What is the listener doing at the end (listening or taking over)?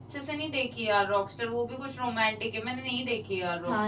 taking over